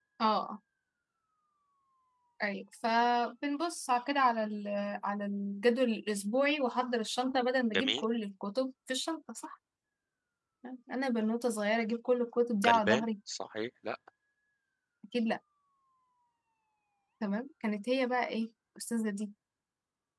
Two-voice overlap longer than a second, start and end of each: none

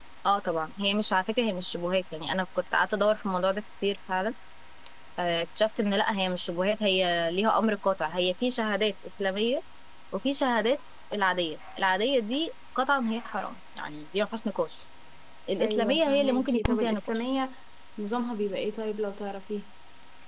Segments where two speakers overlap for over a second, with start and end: 15.6-17.2

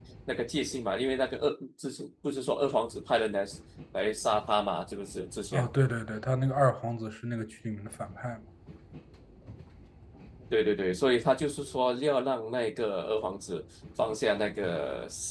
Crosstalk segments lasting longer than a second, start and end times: none

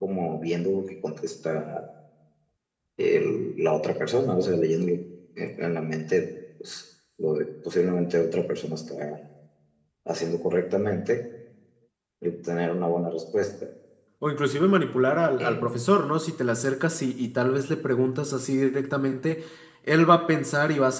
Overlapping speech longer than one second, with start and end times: none

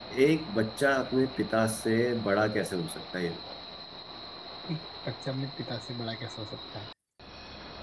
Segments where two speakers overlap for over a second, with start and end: none

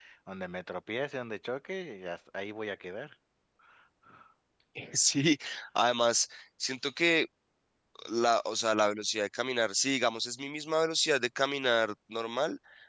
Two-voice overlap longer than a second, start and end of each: none

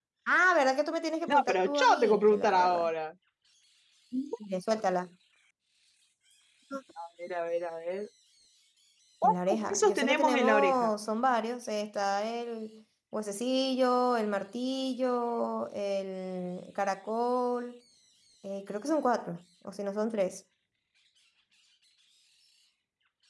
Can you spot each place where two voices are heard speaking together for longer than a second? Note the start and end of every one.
1.3-2.9, 9.2-10.9

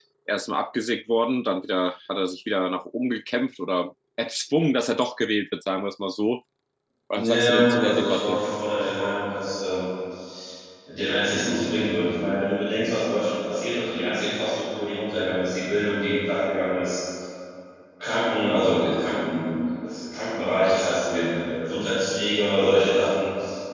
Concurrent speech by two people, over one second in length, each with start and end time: 7.1-8.4

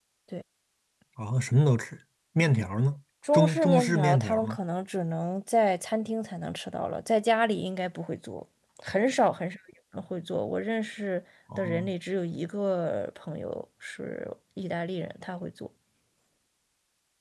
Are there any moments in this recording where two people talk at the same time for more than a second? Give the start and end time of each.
3.3-4.6

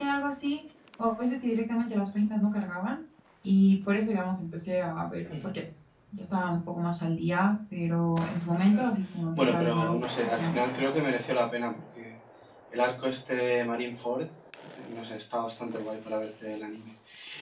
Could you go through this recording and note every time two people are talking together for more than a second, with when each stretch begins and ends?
9.3-10.6

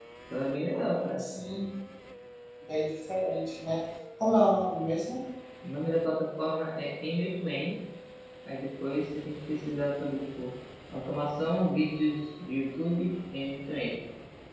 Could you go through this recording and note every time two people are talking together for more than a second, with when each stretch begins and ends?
none

